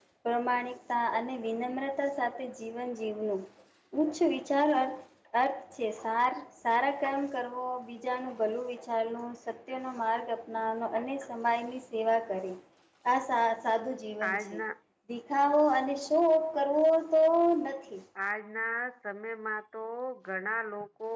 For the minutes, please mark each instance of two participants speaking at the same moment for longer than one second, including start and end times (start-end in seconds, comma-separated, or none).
none